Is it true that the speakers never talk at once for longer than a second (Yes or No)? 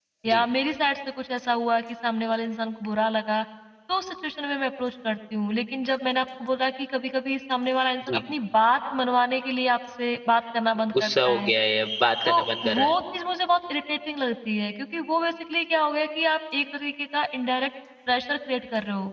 Yes